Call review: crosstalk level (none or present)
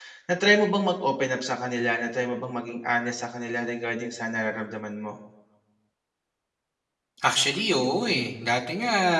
none